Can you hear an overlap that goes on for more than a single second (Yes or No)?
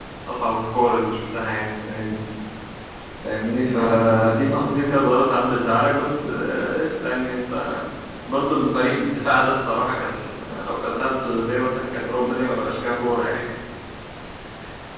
No